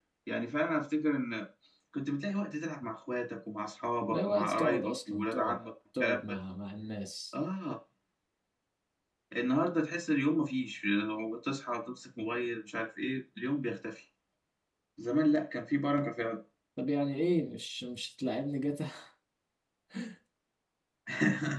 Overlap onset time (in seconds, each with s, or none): 4.1 s